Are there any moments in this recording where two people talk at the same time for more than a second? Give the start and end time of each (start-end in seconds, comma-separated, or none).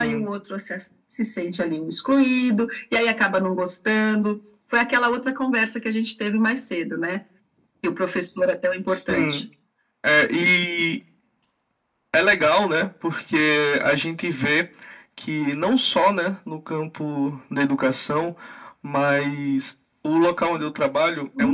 none